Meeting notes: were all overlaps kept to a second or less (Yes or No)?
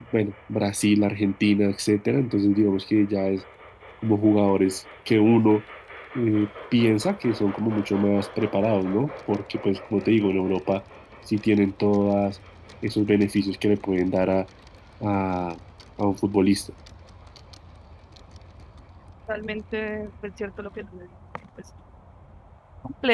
Yes